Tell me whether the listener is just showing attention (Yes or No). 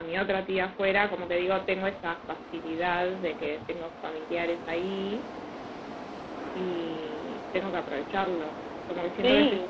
Yes